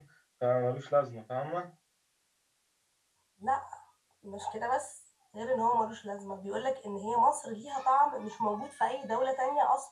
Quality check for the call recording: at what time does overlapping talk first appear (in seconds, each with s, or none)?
none